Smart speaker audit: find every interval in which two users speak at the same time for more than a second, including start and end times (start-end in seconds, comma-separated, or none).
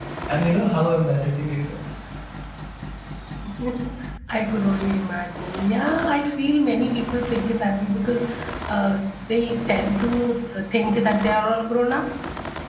none